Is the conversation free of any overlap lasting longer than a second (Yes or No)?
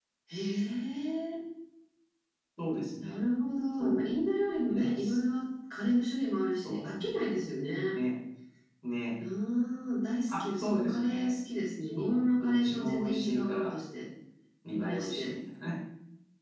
No